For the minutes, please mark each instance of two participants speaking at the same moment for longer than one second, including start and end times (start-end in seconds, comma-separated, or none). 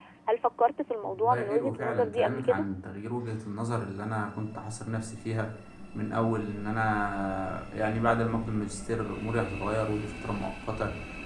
1.0-2.6